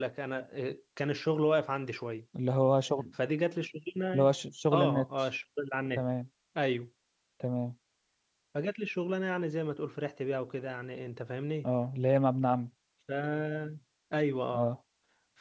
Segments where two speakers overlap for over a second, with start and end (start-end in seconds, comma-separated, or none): none